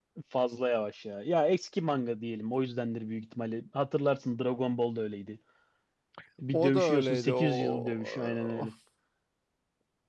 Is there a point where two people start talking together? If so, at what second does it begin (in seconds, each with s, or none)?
6.5 s